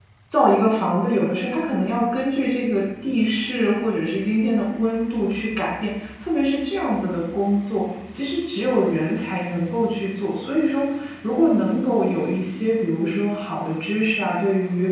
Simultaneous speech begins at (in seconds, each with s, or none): none